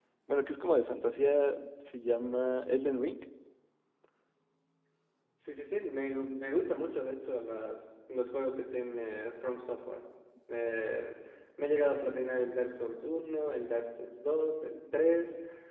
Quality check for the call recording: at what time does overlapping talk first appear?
none

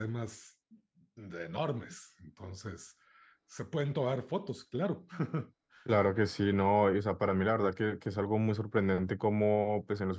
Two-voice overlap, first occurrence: none

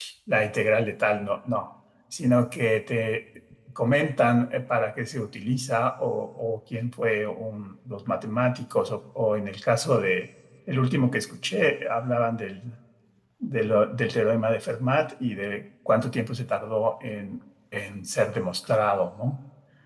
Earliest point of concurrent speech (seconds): none

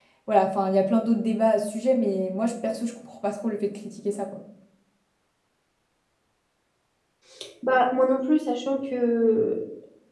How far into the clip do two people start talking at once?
none

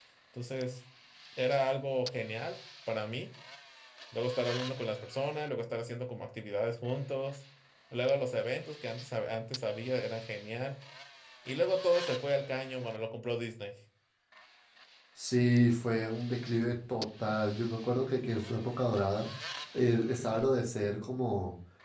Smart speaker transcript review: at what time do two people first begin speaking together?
none

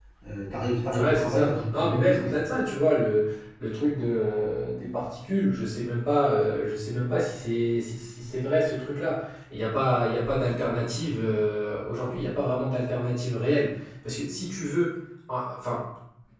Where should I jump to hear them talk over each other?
0.9 s

